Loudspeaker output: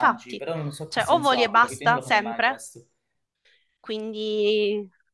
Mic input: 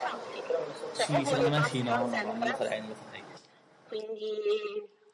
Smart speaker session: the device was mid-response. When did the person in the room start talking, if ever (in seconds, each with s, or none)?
0.9 s